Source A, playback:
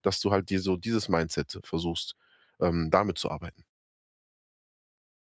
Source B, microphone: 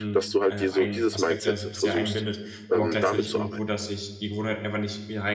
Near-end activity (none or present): present